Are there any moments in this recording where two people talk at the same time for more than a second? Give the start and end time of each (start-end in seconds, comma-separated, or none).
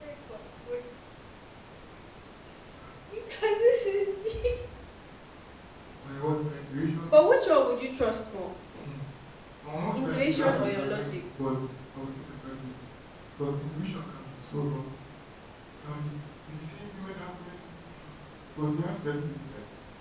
9.9-11.2